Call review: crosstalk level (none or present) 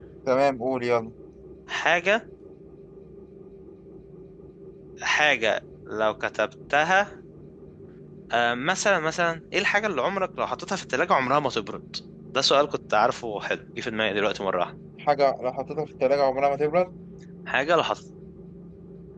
none